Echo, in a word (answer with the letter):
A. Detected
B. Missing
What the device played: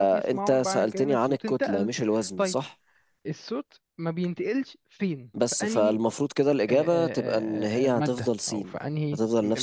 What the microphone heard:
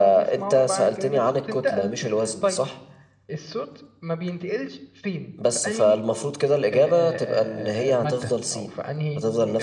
A